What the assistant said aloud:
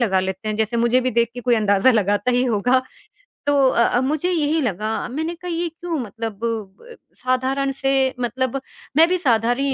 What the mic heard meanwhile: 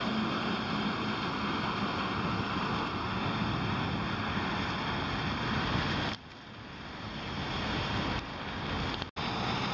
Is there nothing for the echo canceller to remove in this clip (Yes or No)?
Yes